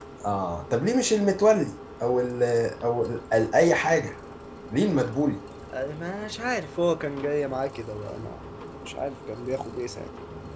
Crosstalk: none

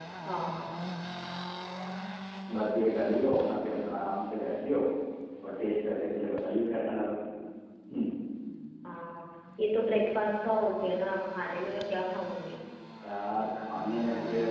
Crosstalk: none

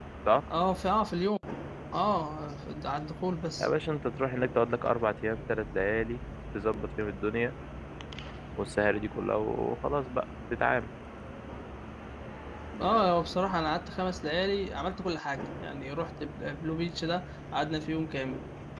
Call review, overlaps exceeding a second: none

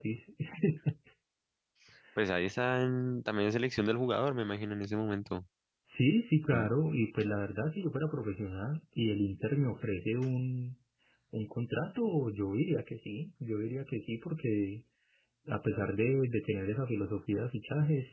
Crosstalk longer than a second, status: none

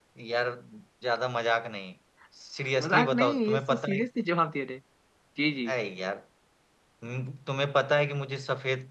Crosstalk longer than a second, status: present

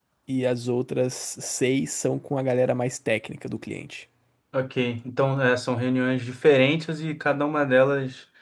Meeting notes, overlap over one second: none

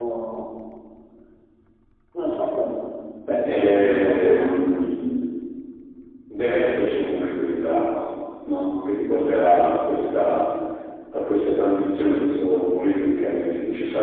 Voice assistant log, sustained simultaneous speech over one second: present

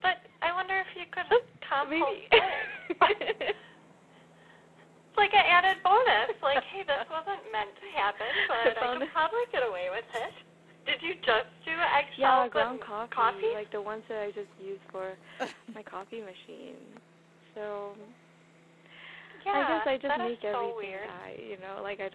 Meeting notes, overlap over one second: present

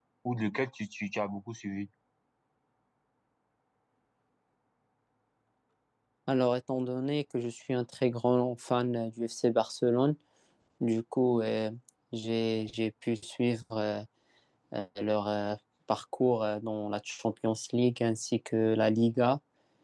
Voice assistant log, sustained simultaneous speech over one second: none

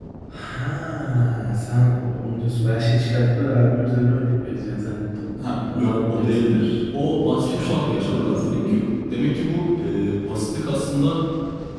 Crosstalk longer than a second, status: present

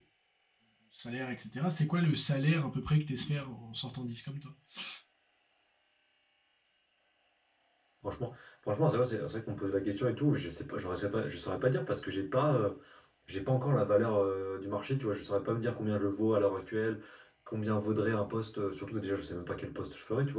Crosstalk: none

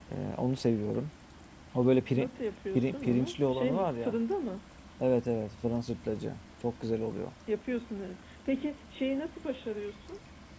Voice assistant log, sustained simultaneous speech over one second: present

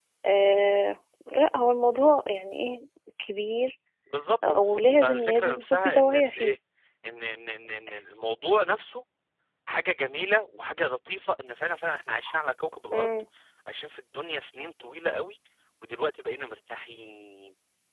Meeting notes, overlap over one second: present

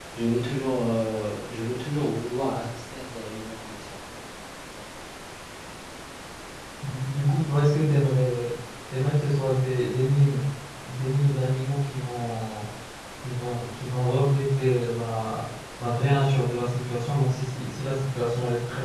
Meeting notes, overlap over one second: none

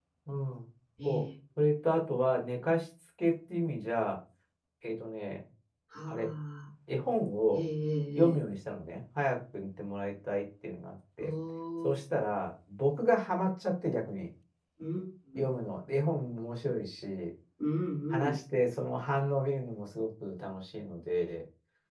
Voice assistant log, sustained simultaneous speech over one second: none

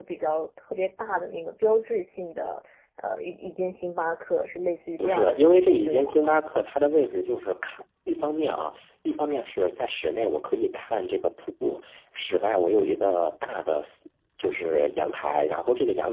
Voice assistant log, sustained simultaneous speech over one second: present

